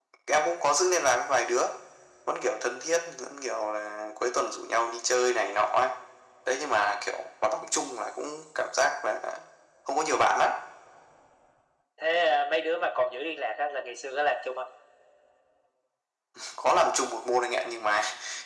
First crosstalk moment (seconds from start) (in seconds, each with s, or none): none